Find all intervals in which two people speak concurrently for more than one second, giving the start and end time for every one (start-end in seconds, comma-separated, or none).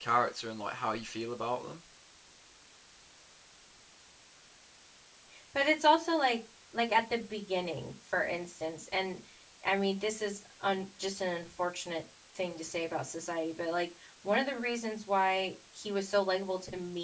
none